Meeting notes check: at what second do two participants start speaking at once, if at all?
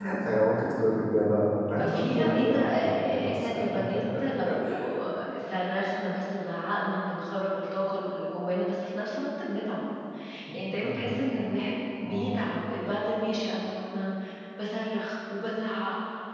1.9 s

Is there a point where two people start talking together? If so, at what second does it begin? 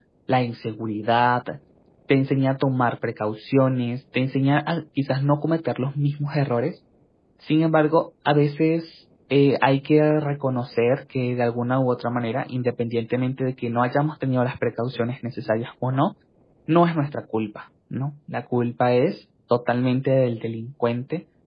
none

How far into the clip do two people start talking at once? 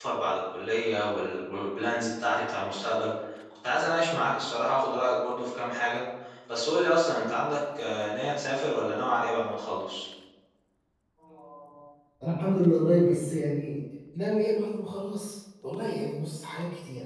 none

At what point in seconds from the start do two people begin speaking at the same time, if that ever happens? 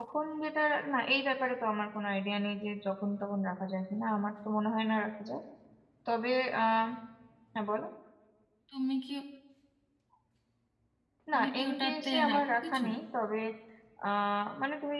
11.3 s

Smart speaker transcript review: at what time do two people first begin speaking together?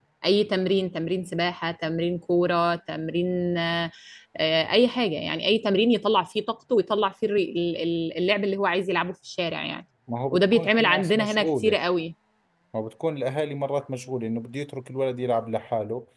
10.3 s

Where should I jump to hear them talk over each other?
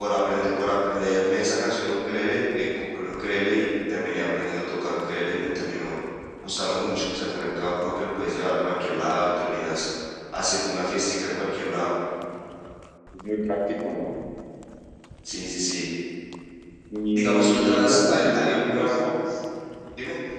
17.1 s

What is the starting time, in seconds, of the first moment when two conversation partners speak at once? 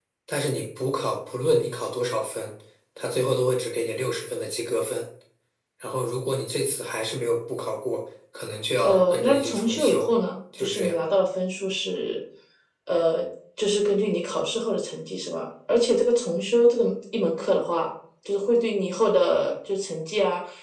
8.8 s

